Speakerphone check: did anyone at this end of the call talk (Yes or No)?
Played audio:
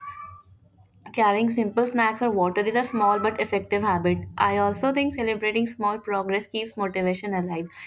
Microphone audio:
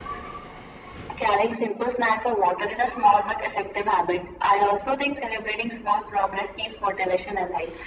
No